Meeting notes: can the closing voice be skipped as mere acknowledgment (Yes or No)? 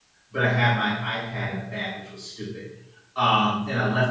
Yes